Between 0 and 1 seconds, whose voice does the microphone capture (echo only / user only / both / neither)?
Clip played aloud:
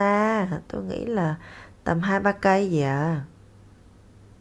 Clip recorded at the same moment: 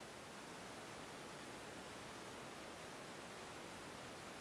neither